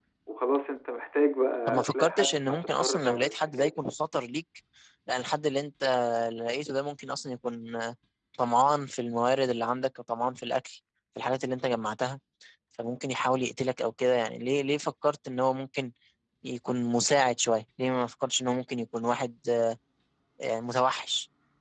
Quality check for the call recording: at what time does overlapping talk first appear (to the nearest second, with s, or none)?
2 s